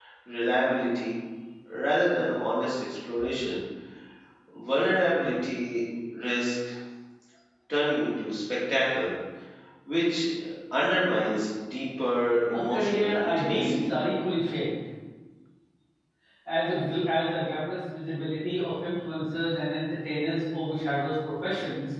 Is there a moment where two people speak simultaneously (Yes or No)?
Yes